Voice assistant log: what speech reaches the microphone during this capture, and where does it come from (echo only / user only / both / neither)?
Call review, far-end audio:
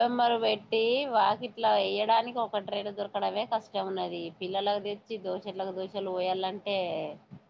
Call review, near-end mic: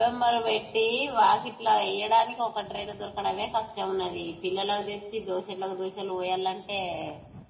echo only